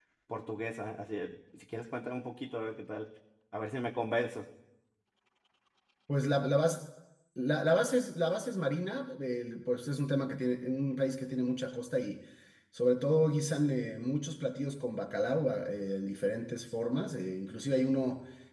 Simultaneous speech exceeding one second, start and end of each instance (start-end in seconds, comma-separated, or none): none